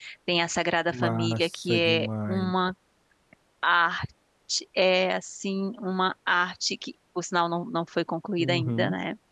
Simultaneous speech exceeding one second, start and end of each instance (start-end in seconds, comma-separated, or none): 0.9-2.5